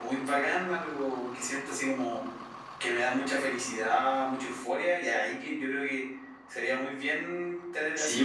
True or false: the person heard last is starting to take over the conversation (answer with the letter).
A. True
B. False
A